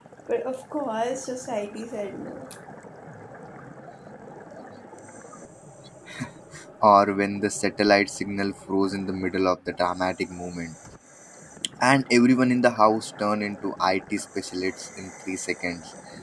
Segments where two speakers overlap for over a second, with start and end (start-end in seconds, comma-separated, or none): none